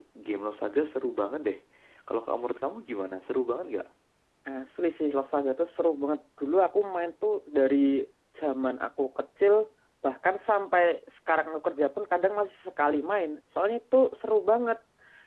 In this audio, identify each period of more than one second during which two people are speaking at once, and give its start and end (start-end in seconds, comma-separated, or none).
none